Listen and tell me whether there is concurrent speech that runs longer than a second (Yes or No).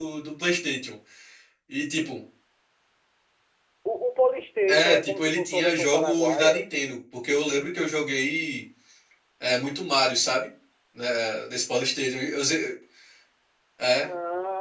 Yes